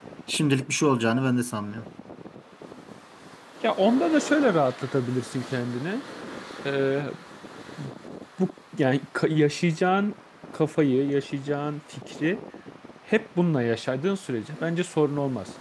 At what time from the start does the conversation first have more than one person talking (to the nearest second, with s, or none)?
none